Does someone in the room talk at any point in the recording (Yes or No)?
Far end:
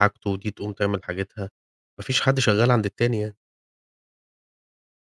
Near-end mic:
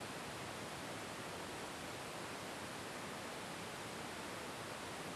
No